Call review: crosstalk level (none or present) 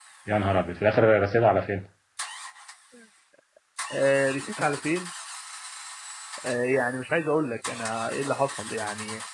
none